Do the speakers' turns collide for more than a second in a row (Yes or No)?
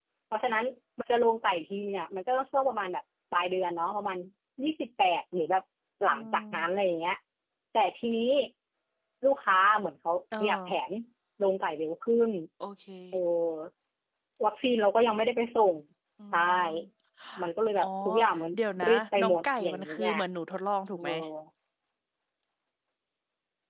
Yes